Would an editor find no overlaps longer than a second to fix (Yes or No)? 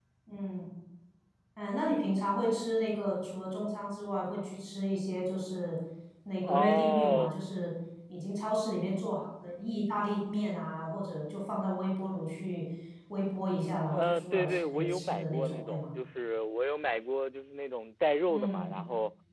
No